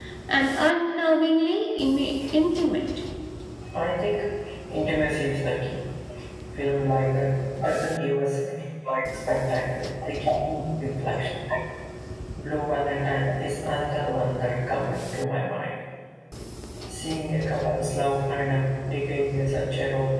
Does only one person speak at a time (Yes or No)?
Yes